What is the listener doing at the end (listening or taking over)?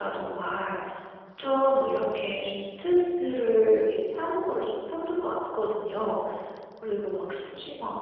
listening